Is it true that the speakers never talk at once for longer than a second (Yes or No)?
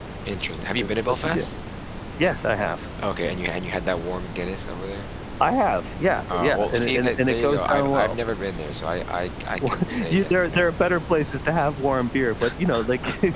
No